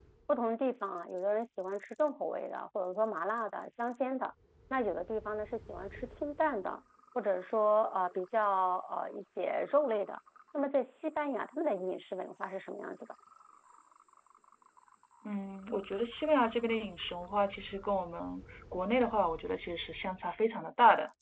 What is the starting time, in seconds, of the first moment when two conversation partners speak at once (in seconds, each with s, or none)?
none